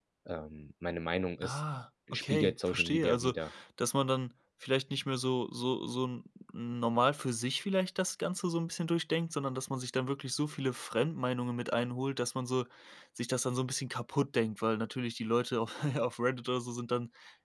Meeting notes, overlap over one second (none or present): present